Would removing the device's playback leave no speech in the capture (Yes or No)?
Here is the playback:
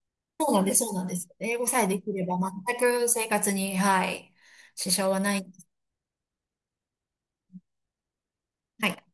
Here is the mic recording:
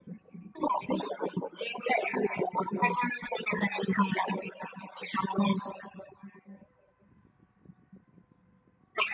Yes